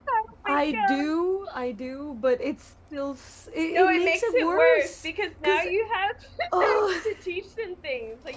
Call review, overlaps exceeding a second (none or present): present